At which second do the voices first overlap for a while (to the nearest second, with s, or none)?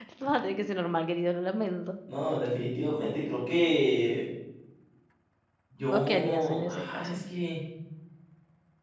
6 s